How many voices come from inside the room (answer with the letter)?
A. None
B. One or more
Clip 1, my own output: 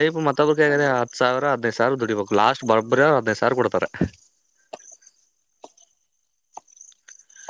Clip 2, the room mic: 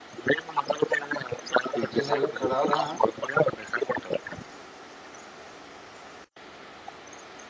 B